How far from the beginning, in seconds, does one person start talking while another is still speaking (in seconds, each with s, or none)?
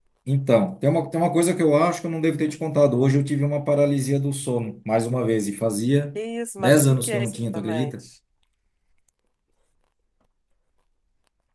6.6 s